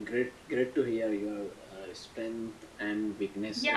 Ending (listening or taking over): taking over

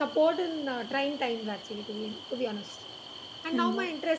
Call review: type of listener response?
listening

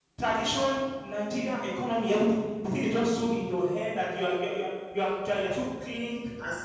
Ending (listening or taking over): taking over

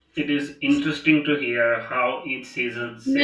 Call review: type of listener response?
taking over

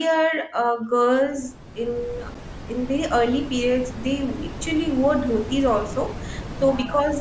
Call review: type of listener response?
listening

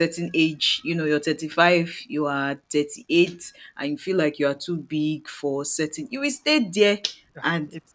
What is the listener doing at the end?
taking over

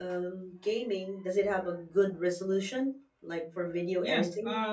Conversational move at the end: taking over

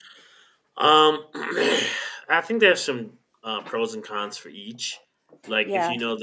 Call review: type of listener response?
listening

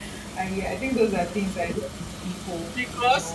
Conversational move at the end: taking over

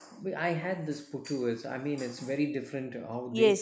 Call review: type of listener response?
taking over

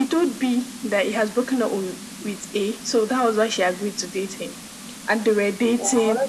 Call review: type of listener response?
listening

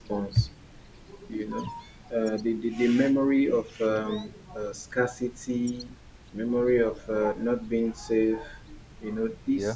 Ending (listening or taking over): listening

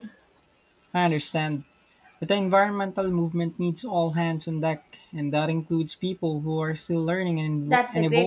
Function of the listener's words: taking over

